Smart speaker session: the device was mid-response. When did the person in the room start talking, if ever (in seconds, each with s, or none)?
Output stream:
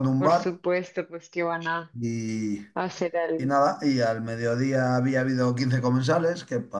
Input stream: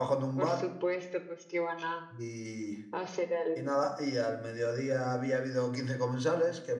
none